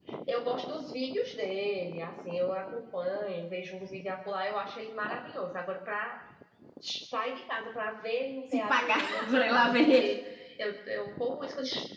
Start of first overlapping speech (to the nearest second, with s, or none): 9 s